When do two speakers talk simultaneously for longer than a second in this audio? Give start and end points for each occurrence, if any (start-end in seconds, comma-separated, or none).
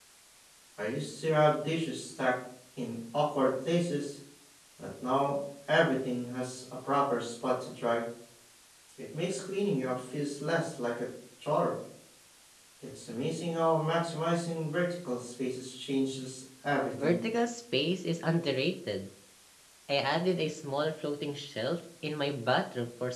none